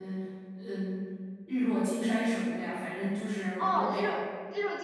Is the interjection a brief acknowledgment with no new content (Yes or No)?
No